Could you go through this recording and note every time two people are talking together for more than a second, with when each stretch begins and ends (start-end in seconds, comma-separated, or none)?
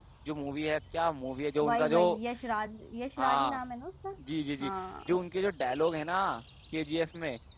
none